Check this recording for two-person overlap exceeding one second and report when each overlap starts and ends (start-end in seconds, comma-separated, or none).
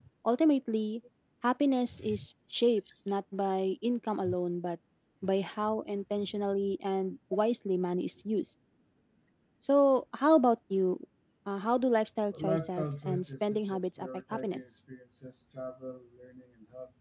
12.4-14.6